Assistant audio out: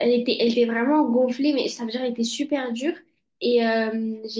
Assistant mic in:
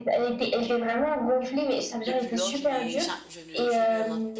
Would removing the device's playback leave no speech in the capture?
No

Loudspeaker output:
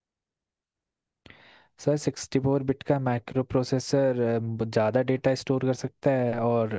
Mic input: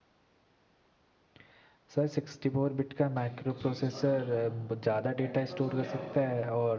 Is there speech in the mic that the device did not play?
Yes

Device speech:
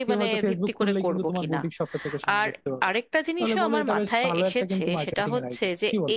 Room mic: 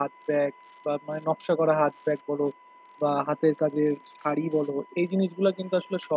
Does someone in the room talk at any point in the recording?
Yes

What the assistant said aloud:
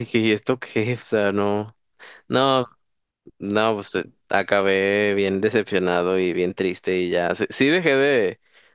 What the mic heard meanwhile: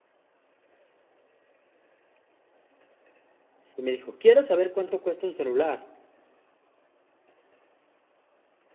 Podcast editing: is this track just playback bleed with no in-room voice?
No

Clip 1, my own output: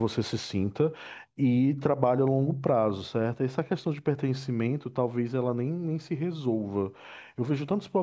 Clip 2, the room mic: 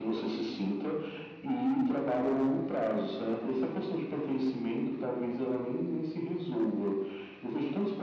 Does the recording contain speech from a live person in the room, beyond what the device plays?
No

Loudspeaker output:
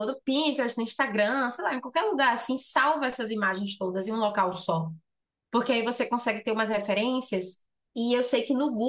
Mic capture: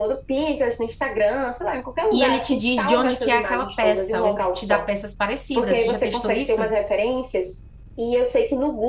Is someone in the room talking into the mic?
Yes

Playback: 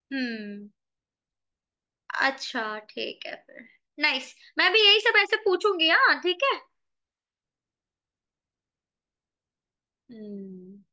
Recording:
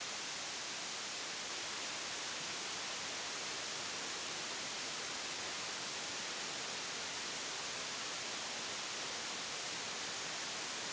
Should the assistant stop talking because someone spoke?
No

